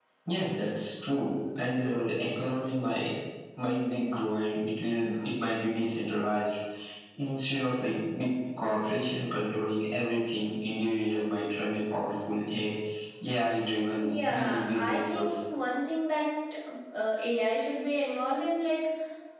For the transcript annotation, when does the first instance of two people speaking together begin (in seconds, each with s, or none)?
14.0 s